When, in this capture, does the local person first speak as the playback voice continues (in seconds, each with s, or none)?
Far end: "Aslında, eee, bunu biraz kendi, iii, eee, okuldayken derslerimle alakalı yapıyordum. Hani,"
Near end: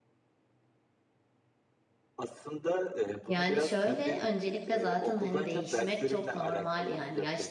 3.3 s